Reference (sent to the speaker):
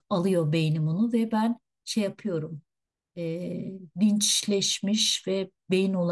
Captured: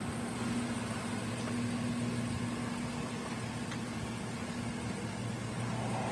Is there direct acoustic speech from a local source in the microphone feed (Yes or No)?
No